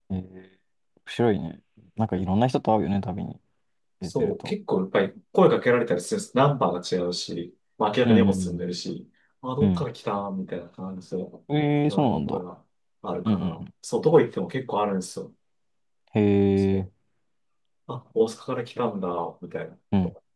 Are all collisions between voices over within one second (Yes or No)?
Yes